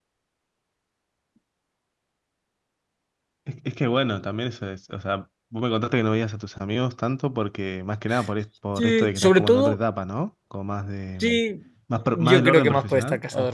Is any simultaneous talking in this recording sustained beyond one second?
Yes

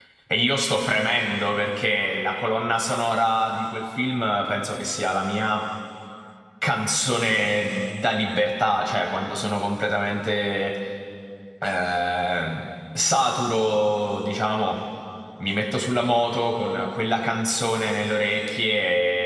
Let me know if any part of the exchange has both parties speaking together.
No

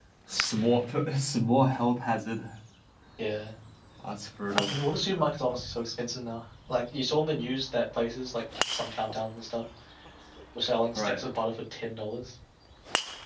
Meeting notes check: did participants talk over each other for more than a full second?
No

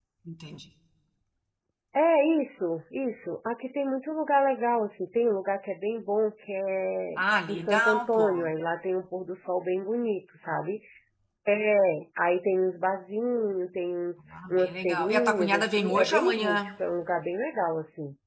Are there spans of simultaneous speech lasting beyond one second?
Yes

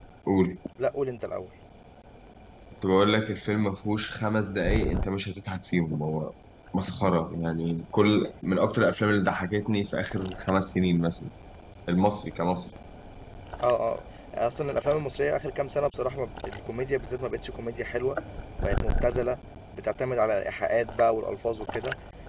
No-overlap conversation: Yes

